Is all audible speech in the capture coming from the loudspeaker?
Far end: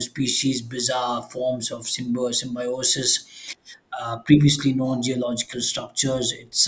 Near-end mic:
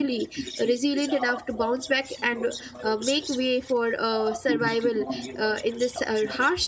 No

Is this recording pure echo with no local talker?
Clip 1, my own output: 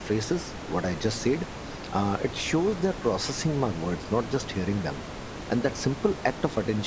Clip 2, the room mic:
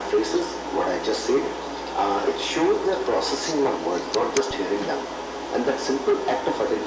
Yes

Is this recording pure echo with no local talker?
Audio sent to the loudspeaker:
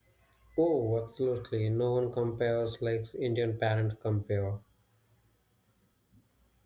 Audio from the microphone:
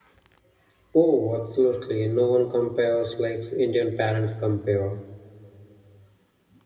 Yes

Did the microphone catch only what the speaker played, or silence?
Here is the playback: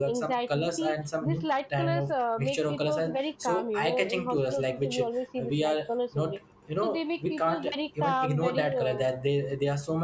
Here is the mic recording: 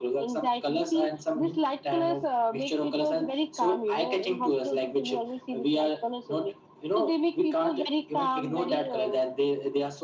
Yes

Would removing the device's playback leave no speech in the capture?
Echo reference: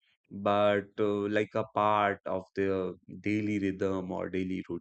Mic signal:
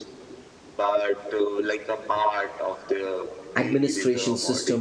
No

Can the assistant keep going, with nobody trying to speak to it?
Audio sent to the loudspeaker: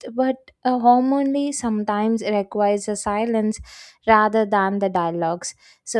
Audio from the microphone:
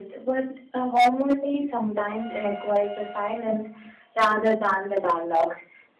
Yes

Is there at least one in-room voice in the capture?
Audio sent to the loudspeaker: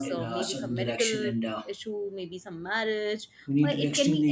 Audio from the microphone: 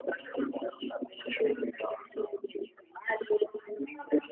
No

